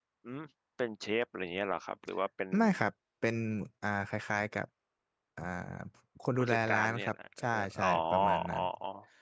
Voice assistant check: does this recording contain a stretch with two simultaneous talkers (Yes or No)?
Yes